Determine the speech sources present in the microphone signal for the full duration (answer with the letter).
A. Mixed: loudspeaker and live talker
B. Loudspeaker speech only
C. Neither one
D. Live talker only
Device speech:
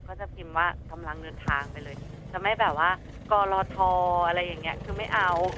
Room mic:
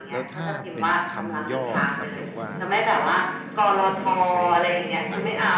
A